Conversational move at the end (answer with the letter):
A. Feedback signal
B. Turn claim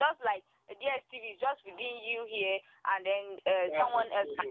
B